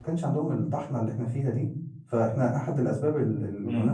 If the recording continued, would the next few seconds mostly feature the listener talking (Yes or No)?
Yes